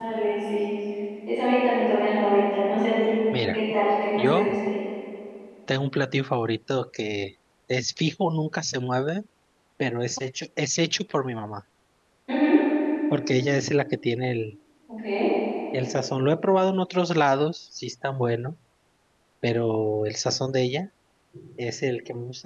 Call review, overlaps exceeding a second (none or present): none